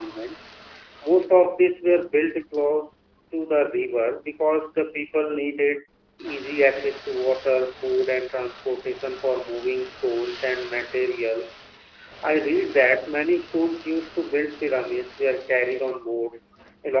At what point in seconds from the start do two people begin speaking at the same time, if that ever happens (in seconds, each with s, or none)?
none